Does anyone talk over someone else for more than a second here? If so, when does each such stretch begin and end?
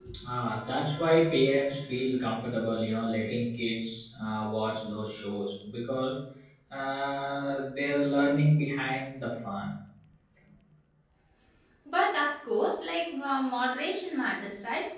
none

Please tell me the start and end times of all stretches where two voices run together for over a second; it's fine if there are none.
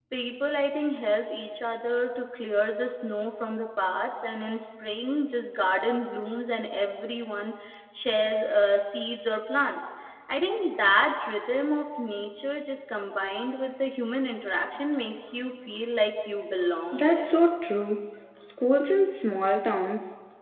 none

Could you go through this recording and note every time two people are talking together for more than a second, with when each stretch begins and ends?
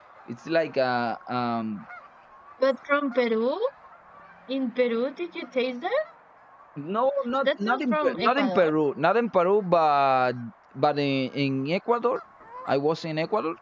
7.4-8.7

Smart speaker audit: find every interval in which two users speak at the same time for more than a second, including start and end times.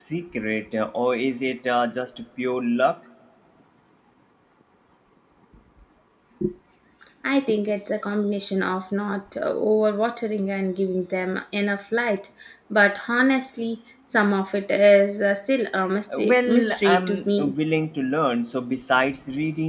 16.1-17.5

